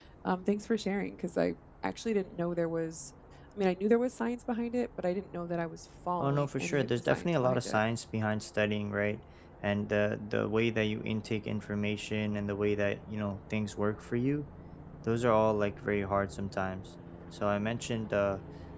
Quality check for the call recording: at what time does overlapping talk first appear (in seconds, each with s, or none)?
6.2 s